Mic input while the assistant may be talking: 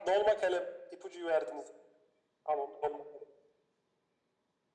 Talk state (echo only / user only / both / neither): echo only